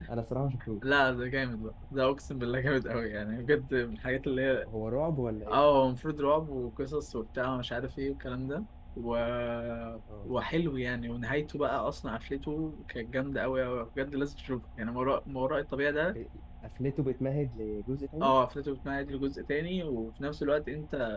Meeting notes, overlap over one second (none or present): none